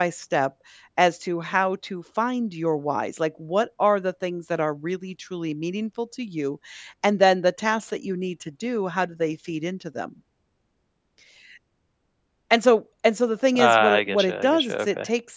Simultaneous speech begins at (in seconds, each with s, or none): 13.5 s